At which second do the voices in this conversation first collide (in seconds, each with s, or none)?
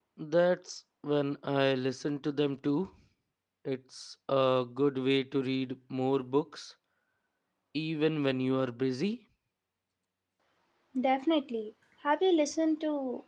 none